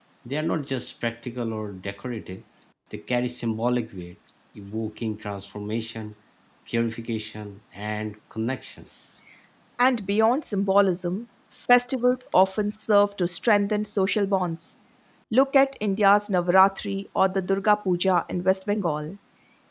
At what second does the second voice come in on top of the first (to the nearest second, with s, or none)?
none